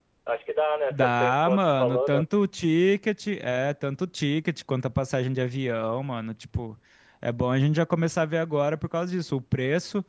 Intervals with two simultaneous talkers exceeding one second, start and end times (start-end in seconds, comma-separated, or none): 0.9-2.2